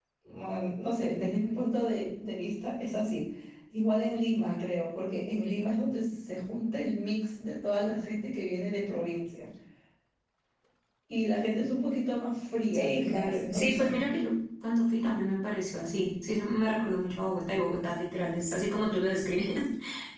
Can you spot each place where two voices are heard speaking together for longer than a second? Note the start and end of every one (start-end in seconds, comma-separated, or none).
12.7-13.9